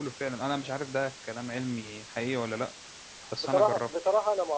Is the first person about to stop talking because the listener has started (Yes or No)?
Yes